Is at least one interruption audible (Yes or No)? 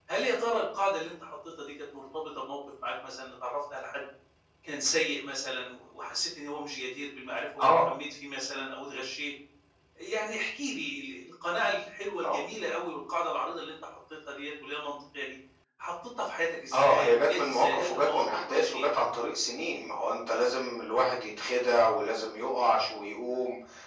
Yes